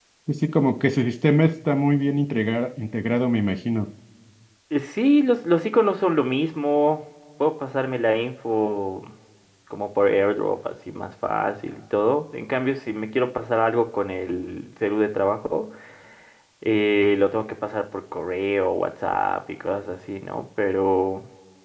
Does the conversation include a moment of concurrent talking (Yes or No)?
No